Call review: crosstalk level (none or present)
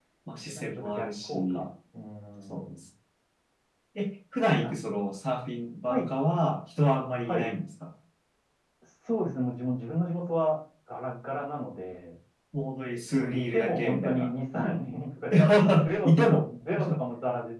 present